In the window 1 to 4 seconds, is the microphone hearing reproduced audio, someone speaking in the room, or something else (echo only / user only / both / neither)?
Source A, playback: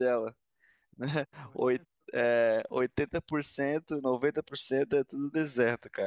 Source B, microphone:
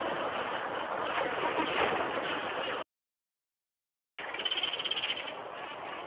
neither